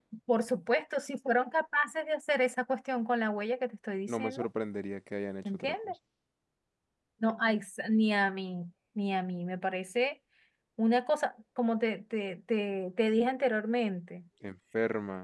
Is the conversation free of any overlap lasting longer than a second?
Yes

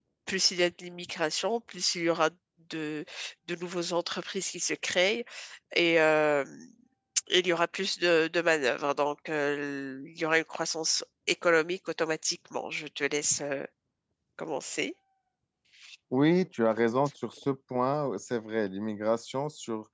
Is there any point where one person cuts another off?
No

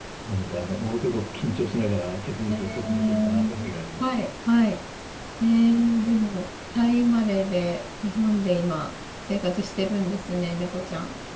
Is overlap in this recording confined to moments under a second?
No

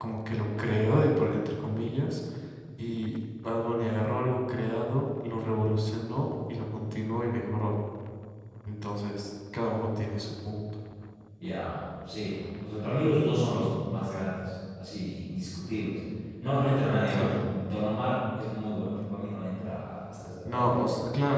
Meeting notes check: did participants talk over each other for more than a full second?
No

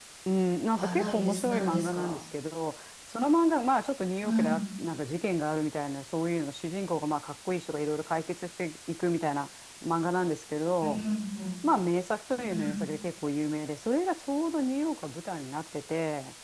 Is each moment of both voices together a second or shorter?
No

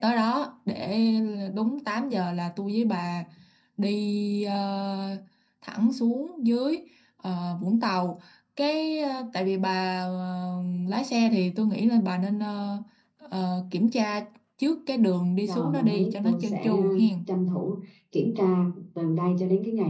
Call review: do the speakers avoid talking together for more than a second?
No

